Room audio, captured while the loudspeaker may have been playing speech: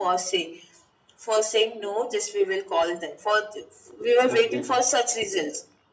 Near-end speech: present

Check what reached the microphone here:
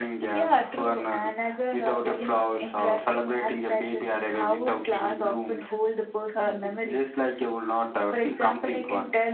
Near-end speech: none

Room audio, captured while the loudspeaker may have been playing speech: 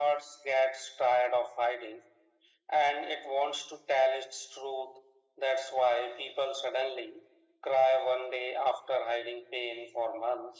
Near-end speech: none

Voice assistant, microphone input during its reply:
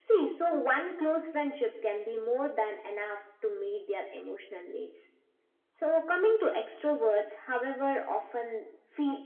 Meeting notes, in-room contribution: none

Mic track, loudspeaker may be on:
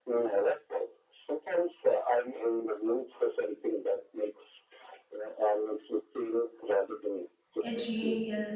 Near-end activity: present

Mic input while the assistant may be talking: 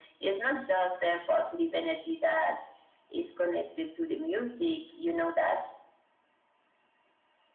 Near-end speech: none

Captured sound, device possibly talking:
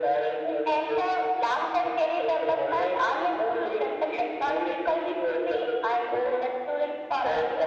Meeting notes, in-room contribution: none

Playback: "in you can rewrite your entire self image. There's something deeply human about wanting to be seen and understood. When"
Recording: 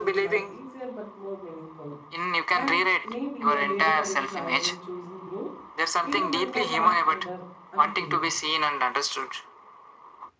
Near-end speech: present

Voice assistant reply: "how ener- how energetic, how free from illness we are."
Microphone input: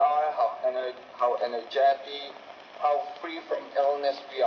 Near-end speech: none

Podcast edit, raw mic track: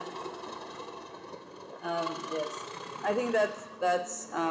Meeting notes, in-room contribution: none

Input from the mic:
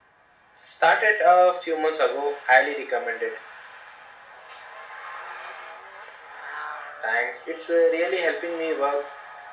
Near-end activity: none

